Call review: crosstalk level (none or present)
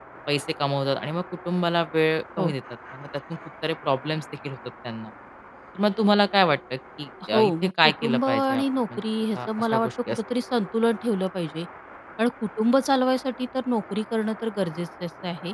present